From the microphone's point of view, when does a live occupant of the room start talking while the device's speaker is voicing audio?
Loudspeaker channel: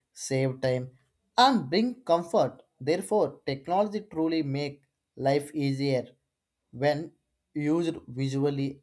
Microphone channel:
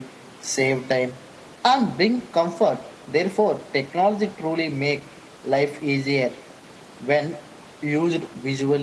none

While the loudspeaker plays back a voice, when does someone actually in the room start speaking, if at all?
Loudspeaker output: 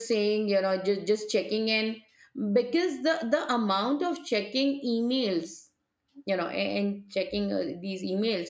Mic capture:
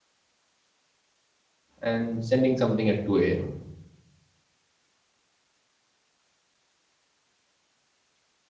1.8 s

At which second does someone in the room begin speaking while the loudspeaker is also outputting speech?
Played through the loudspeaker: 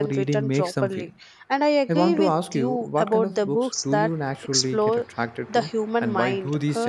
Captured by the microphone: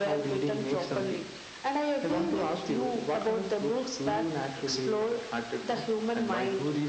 none

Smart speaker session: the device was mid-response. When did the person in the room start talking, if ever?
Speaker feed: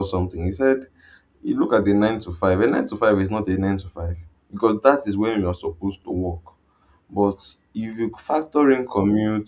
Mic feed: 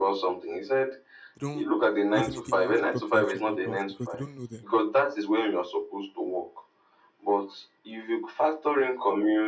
1.3 s

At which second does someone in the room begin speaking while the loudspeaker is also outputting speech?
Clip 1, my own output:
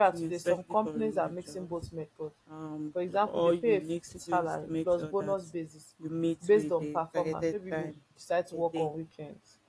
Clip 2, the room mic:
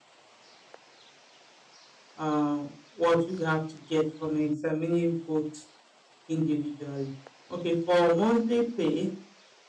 2.2 s

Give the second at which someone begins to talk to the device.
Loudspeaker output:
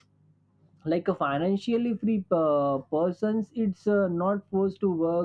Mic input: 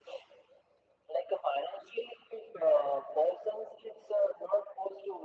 none

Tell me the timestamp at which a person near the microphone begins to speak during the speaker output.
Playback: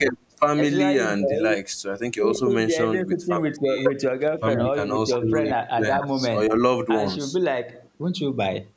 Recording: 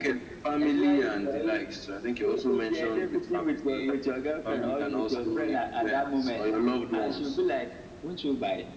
none

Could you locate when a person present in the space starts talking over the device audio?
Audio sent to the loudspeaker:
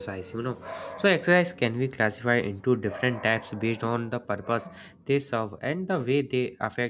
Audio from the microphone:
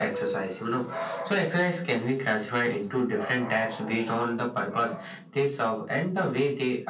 none

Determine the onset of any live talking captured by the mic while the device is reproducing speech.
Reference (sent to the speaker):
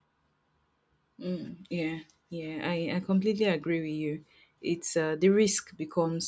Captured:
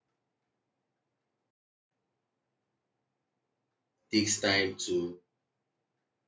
4.1 s

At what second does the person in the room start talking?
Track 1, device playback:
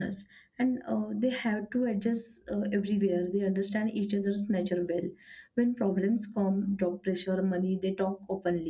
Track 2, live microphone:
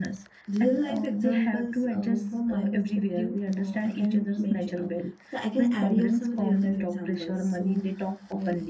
0.5 s

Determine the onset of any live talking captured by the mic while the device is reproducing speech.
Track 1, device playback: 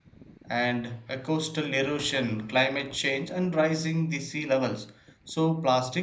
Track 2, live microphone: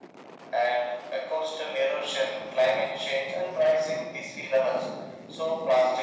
none

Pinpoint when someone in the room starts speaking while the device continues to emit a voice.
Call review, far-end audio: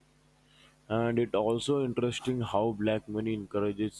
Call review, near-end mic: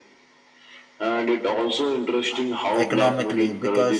2.8 s

